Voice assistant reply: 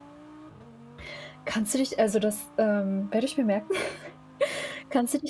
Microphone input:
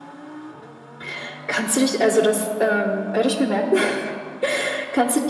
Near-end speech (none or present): none